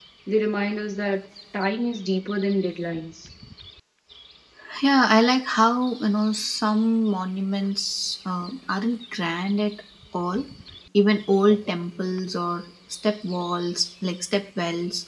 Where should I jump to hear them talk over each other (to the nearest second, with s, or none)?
none